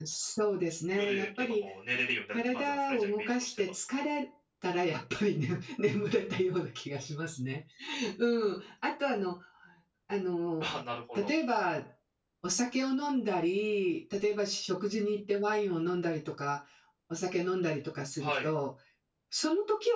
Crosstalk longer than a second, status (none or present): present